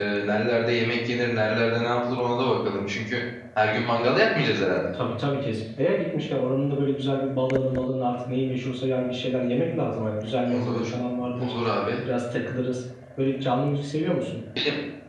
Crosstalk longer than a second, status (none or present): none